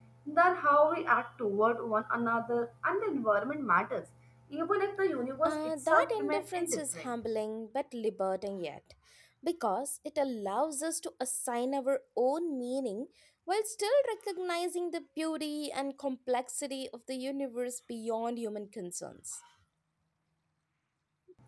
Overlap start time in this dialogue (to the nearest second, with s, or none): 5 s